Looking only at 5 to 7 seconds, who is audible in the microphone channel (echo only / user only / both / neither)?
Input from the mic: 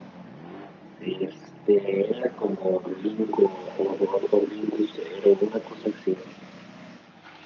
echo only